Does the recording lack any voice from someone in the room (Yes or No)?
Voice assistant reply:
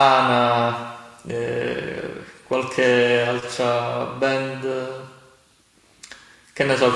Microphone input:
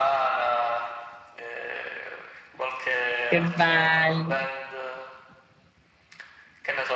No